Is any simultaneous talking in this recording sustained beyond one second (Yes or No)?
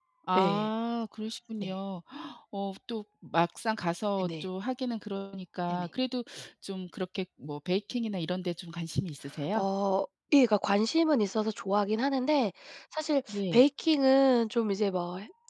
No